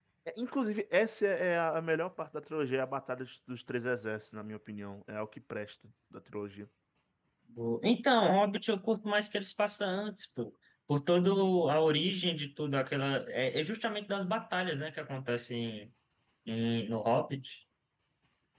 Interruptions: none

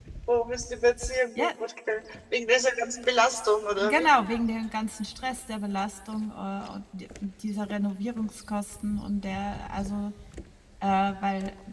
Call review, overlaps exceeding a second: none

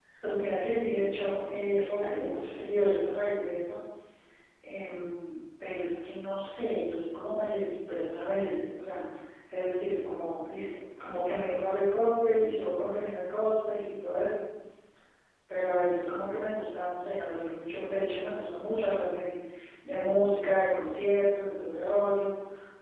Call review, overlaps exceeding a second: present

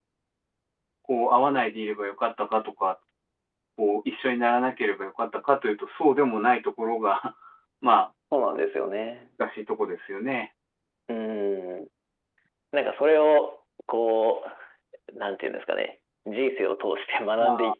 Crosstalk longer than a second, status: none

